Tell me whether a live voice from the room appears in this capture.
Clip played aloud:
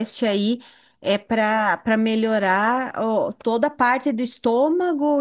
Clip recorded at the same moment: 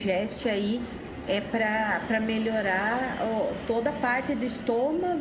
No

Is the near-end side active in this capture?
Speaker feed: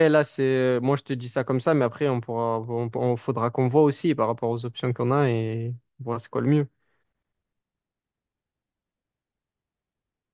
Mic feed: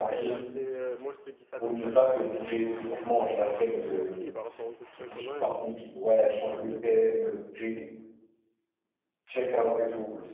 Yes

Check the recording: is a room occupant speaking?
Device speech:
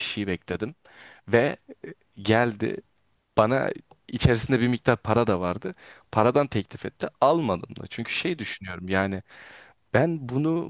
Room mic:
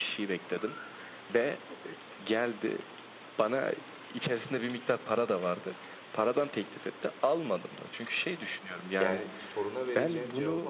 Yes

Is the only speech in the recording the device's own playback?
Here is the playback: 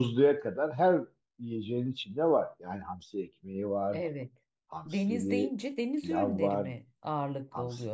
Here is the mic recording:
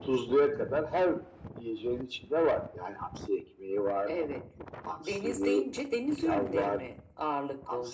Yes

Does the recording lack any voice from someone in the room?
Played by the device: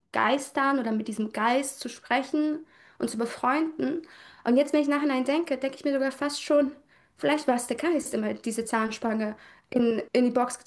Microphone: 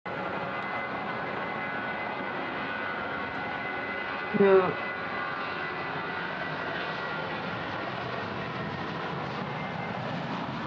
No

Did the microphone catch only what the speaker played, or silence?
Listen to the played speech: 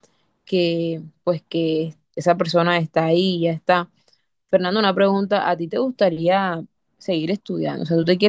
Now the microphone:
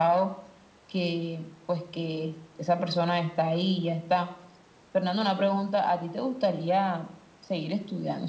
Yes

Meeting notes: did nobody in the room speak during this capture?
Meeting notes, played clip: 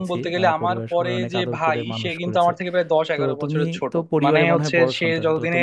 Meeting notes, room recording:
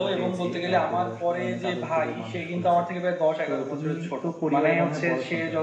Yes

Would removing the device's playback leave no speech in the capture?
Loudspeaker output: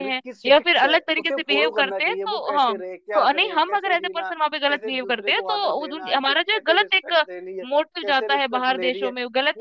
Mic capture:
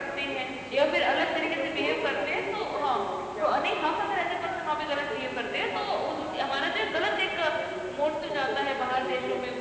Yes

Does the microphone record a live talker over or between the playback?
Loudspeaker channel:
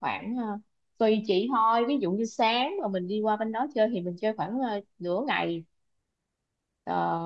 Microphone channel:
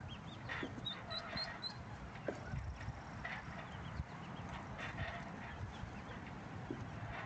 No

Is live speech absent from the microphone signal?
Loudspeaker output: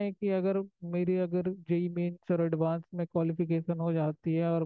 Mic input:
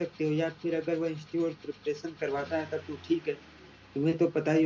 No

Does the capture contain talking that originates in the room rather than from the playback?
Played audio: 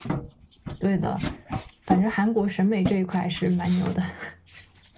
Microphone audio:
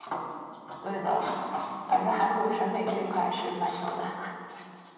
No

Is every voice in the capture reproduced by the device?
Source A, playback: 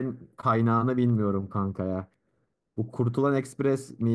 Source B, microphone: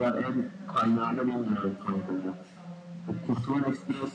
No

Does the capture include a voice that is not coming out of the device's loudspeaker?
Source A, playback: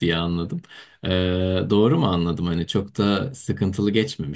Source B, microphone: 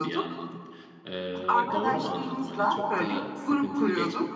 Yes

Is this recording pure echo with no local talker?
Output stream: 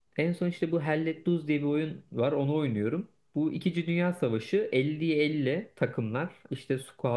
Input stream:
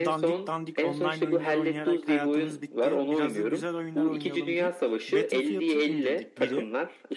No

